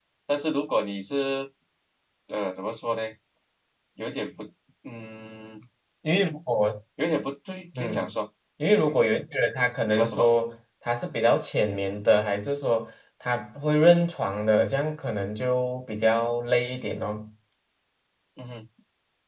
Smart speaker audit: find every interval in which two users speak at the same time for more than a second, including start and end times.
none

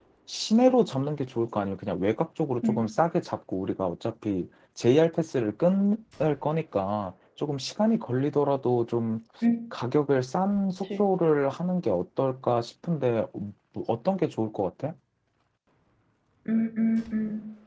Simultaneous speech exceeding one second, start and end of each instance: none

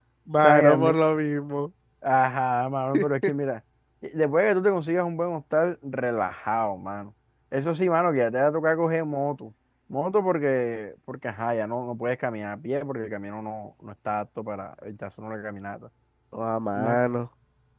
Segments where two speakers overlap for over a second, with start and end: none

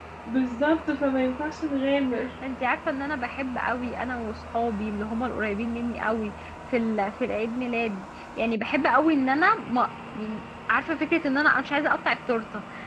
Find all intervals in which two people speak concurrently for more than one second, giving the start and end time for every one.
none

